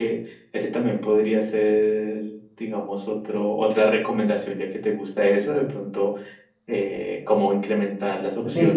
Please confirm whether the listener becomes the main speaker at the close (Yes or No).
Yes